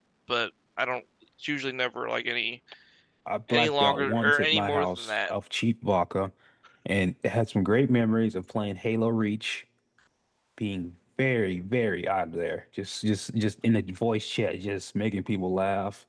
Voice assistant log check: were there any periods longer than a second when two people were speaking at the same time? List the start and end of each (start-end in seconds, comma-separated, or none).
3.5-5.3